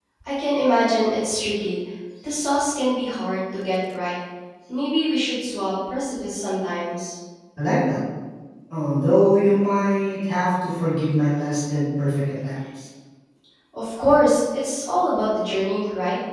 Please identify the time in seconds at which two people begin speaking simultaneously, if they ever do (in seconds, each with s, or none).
none